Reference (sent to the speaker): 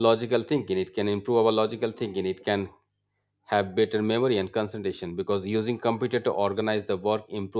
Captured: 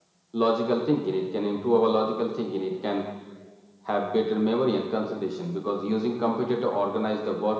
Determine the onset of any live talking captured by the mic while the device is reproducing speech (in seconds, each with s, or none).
none